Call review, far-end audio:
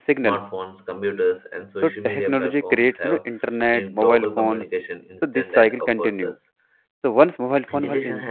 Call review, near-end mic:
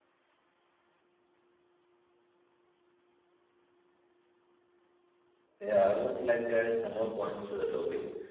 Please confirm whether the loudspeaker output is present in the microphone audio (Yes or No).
No